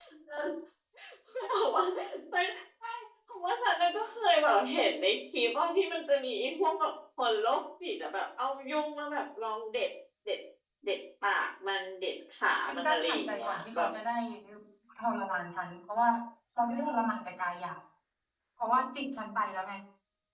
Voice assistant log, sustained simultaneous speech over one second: present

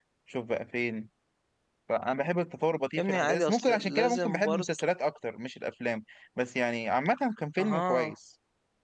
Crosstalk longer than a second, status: present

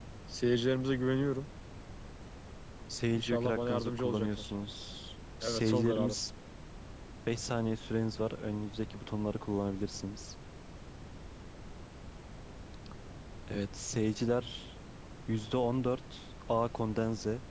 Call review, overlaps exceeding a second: present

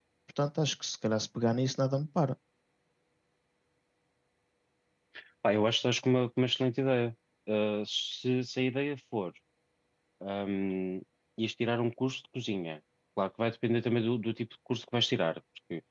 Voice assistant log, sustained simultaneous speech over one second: none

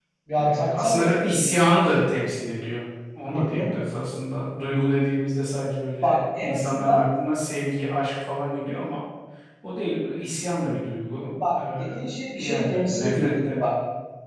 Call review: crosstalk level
present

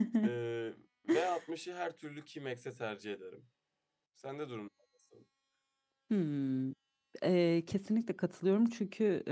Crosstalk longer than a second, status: none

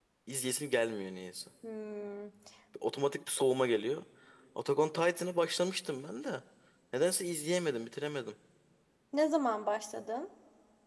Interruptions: none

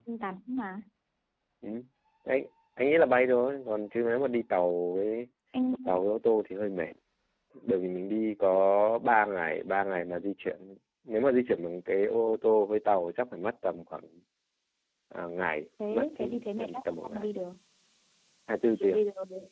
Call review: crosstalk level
present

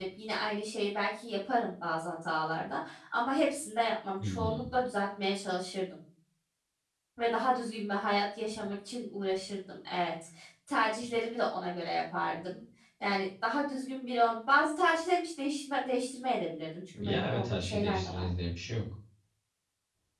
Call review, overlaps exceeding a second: present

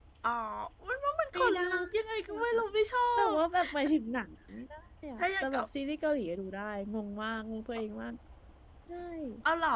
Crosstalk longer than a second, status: none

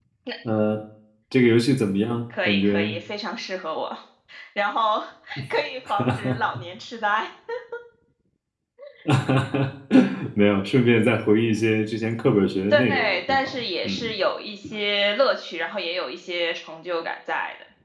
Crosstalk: present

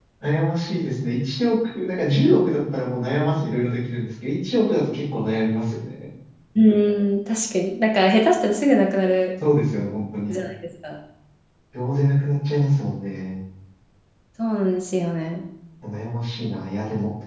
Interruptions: none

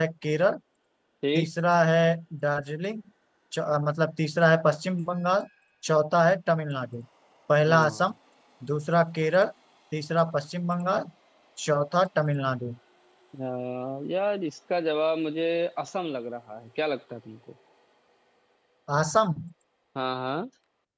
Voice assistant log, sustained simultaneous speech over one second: none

